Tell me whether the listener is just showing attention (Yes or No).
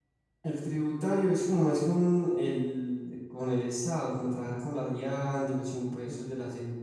Yes